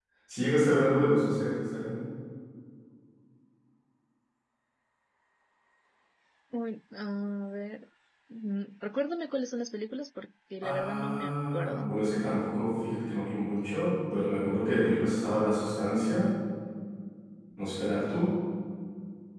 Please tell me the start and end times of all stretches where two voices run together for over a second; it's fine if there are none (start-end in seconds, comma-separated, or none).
10.6-12.0